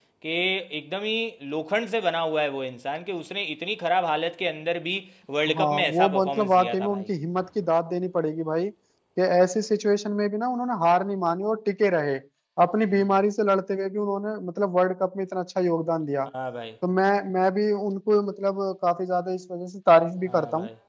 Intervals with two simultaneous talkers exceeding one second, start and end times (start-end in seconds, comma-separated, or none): 5.5-7.1